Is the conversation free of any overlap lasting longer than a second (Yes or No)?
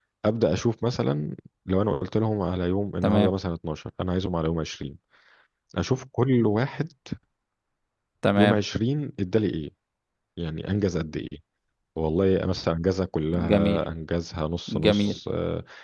Yes